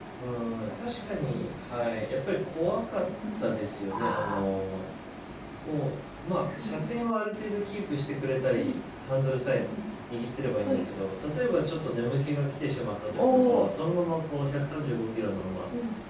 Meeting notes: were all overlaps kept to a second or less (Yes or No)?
Yes